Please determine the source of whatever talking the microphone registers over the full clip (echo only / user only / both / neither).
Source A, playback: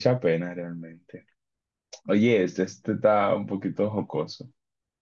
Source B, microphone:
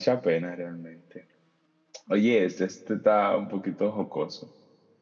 echo only